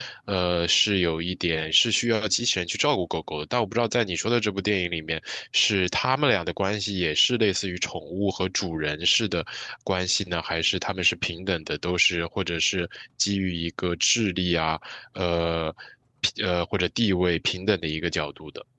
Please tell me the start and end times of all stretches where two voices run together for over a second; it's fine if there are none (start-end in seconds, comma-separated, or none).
none